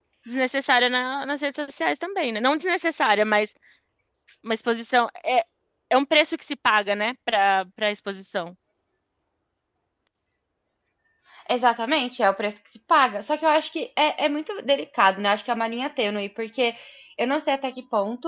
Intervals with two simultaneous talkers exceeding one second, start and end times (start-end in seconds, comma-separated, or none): none